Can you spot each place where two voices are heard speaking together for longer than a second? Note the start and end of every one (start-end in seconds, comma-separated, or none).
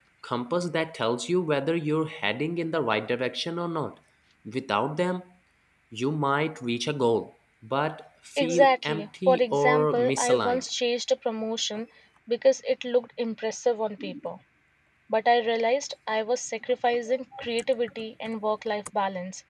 8.4-10.6